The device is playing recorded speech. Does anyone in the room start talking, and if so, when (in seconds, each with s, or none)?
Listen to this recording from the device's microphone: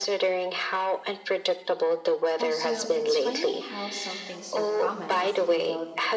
2.4 s